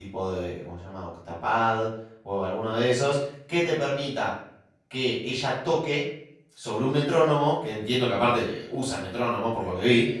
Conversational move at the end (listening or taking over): listening